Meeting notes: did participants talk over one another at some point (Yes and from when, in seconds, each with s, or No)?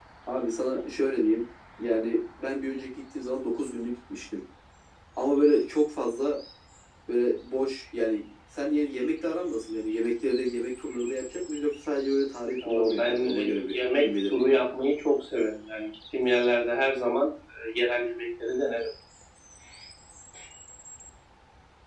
Yes, from 12.6 s